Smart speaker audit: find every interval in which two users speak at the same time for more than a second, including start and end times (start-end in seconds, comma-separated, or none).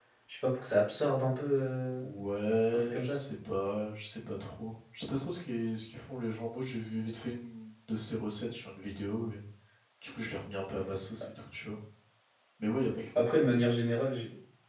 none